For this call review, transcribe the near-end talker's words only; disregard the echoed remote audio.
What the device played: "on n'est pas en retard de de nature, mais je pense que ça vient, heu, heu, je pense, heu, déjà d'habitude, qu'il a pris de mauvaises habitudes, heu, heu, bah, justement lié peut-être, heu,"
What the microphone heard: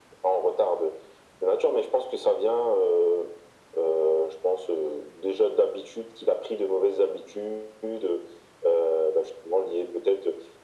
none

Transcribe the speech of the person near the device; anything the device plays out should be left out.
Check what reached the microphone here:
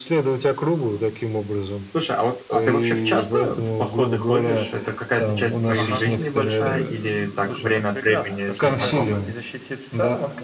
Слушай, а вот, а ты вообще в часто в походы ходишь, это какая-то часть твоей жизни большая или так время от времени со знакомыми?

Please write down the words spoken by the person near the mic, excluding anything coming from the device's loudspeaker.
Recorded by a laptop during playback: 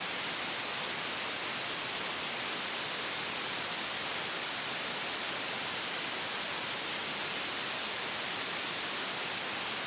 none

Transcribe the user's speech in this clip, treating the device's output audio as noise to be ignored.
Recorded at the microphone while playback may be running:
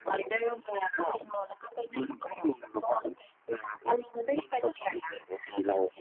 none

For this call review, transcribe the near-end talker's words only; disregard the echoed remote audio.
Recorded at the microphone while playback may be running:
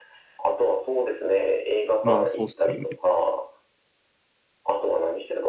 まあ、そうっすよね。

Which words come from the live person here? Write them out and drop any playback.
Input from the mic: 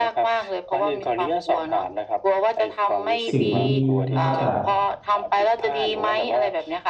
สิ่งดี ๆ นะครับ แต่

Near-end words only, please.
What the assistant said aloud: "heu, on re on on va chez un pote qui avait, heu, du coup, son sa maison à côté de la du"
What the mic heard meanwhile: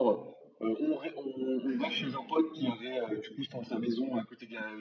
OK.

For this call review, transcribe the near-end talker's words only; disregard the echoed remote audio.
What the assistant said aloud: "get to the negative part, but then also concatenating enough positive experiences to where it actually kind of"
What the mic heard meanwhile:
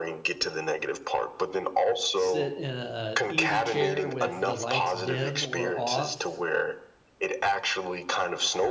sit in a easy chair with the lights dim or off,

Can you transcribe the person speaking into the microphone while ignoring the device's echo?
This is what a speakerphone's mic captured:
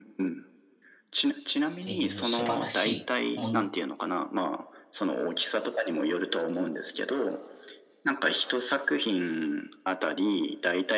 ていう素晴らしいもん

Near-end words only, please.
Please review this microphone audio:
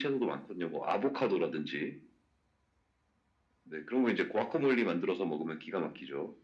none

